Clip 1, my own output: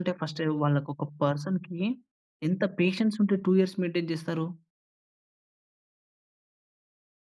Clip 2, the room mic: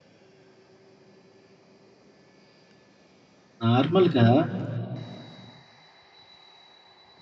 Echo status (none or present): none